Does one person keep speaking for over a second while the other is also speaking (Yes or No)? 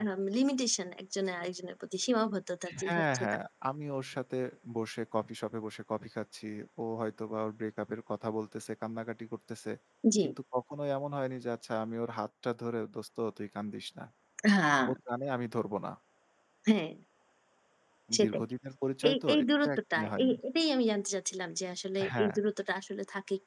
Yes